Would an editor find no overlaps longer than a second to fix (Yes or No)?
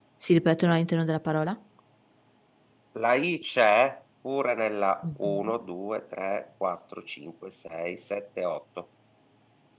Yes